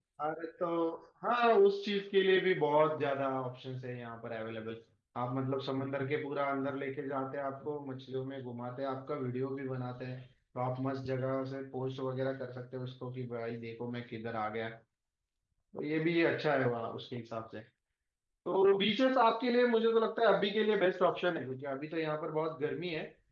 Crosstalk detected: No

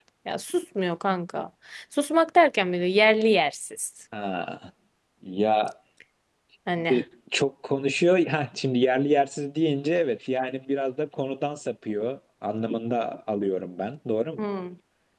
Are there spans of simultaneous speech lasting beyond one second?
No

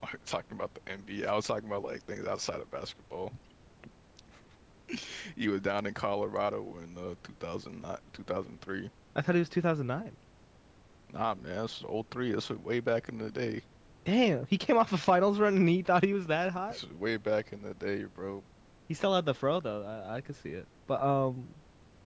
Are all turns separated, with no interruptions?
Yes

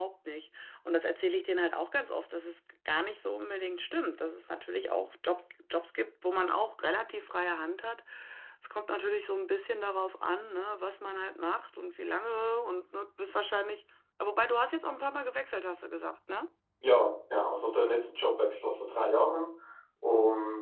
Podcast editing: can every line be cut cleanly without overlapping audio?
Yes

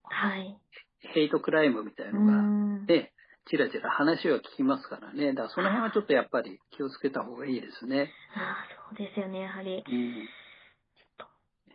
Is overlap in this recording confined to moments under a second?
Yes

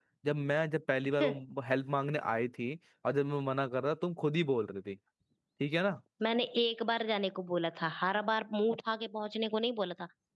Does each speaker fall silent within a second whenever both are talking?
Yes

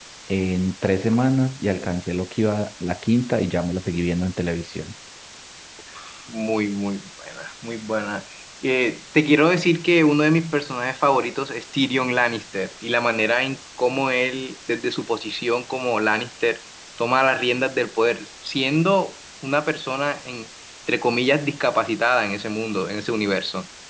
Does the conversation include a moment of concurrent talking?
No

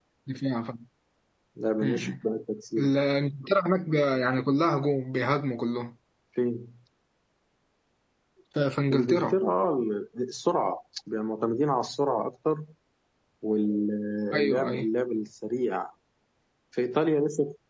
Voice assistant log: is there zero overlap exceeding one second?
Yes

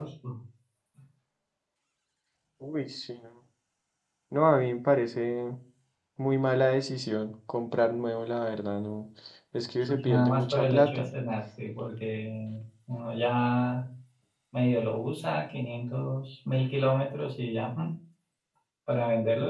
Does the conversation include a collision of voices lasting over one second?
Yes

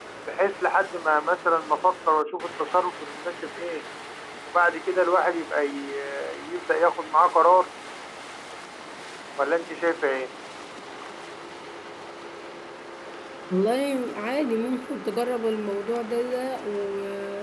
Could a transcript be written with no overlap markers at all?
Yes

